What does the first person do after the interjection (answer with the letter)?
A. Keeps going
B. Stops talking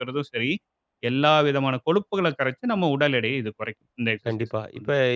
B